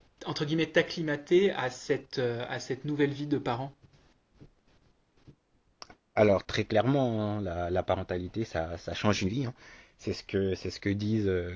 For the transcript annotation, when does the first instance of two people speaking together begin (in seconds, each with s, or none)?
none